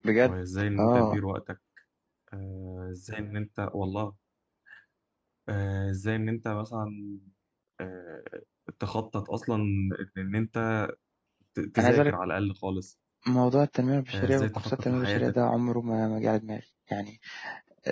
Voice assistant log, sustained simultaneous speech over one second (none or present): present